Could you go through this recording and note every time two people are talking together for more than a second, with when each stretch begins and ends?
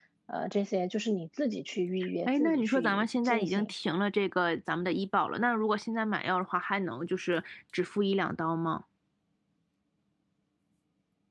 2.3-3.7

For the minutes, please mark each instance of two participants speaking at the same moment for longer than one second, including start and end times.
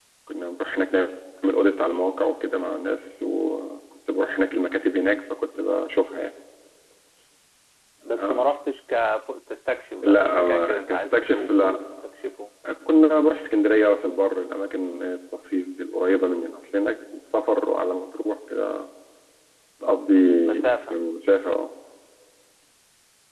10.0-11.8

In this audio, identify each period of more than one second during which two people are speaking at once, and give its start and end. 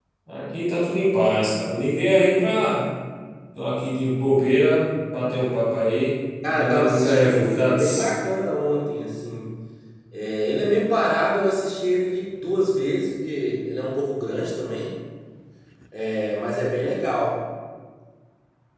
6.4-8.1

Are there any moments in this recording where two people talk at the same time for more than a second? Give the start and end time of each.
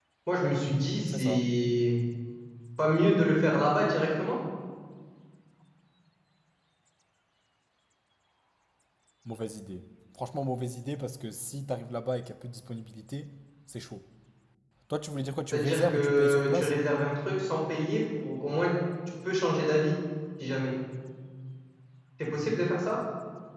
15.5-16.7

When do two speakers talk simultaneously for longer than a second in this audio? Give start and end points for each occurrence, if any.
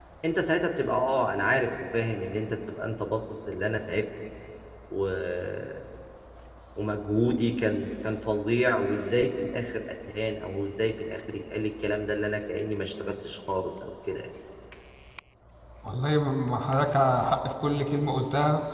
none

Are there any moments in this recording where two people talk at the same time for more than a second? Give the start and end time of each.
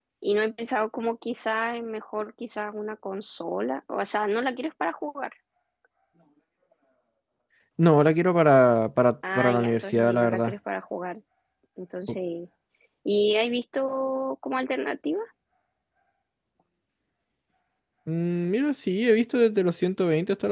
9.3-10.5

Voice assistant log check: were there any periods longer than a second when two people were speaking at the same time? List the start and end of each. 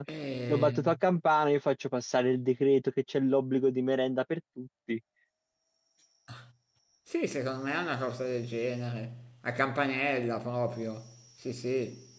none

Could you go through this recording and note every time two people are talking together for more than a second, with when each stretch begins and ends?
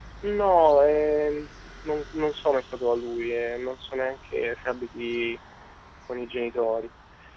none

